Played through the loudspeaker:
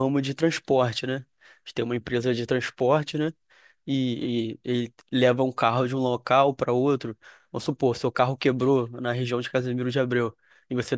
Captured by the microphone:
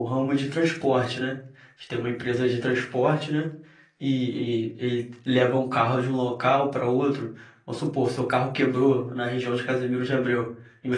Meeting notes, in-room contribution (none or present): none